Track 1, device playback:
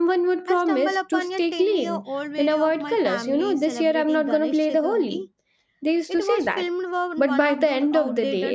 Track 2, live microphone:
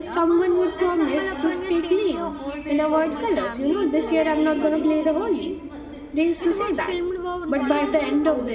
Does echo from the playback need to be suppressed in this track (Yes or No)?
Yes